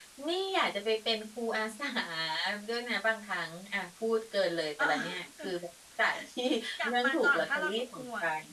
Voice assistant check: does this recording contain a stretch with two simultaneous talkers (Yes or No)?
Yes